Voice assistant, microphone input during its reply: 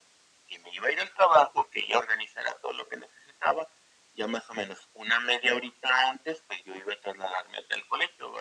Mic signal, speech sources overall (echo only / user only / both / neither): echo only